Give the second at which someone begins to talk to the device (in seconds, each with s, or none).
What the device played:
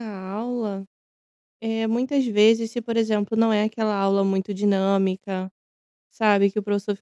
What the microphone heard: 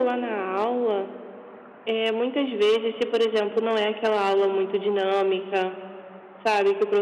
none